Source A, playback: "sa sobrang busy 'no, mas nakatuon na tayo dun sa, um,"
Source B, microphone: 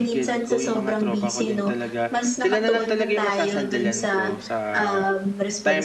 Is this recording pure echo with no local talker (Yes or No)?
No